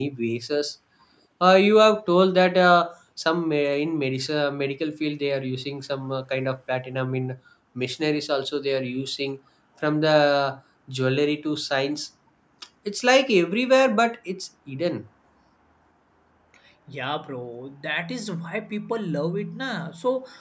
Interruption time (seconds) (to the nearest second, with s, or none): none